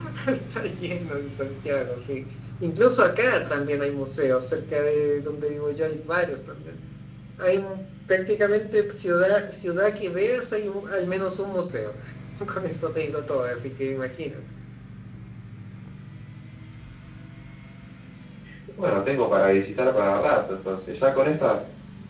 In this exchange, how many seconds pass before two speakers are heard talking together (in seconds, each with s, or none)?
none